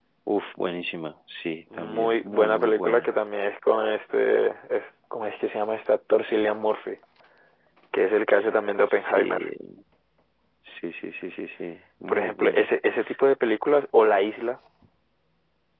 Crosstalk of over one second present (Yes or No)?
Yes